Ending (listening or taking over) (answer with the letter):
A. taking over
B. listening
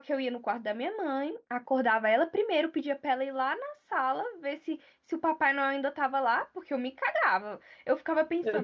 B